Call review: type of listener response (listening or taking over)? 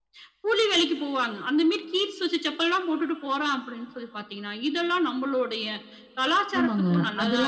taking over